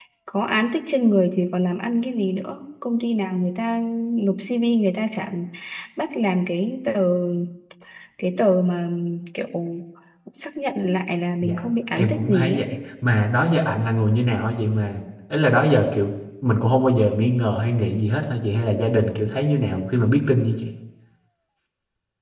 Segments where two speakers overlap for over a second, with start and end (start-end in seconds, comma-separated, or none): 11.4-12.7